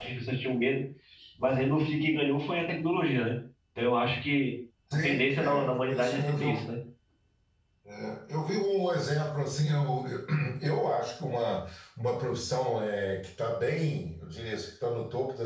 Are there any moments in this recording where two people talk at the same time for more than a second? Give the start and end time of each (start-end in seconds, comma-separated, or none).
5.0-6.7